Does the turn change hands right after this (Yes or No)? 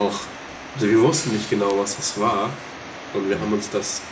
No